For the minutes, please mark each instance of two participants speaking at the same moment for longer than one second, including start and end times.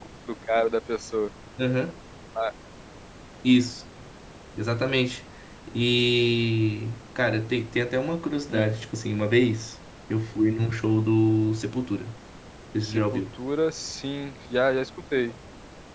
none

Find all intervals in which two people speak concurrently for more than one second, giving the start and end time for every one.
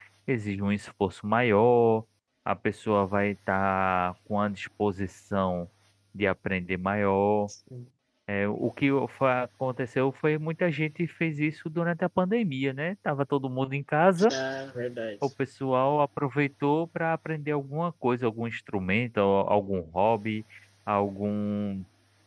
none

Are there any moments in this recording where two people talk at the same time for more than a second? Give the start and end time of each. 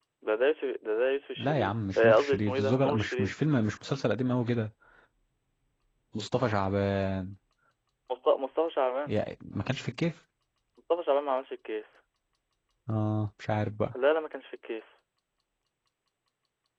1.4-3.3

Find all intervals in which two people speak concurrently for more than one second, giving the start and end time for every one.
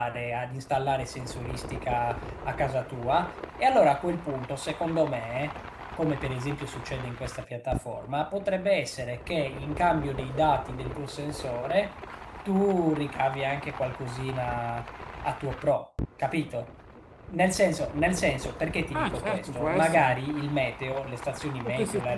18.9-20.2

